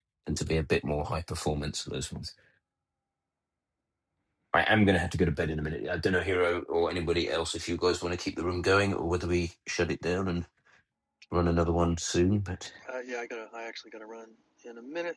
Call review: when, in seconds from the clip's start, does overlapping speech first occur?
none

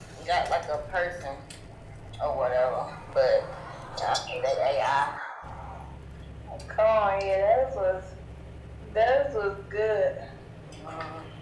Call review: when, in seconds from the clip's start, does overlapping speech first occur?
none

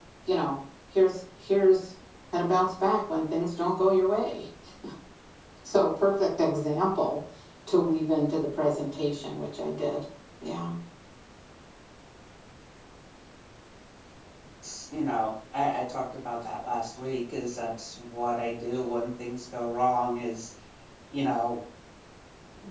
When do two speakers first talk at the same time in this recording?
none

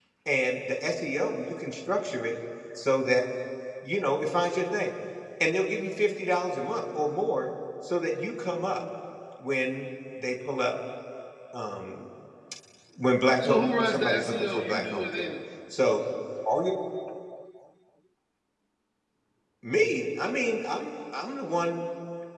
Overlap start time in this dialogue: 13 s

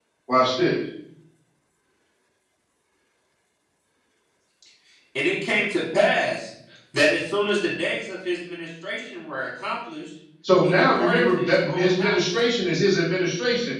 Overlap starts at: 10 s

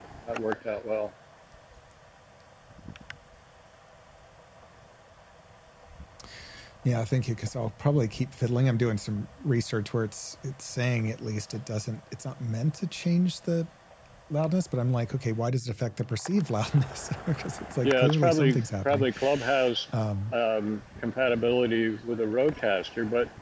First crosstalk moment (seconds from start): 18 s

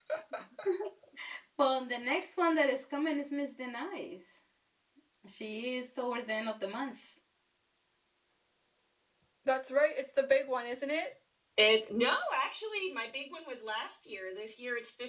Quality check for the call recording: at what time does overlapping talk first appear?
none

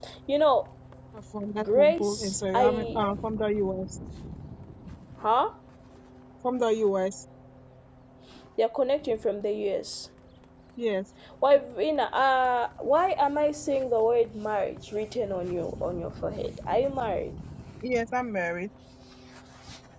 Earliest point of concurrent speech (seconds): 2 s

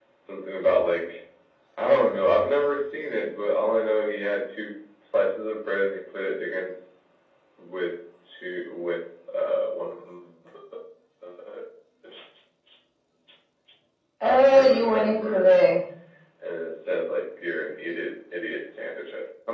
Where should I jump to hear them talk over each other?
14 s

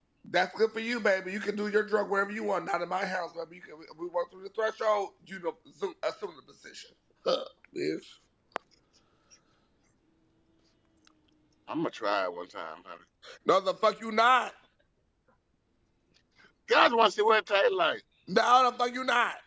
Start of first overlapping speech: none

